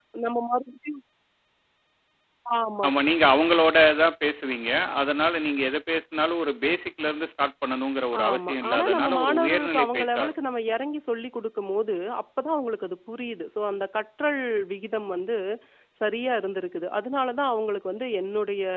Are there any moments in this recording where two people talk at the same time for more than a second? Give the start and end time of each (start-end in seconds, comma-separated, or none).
8.2-10.3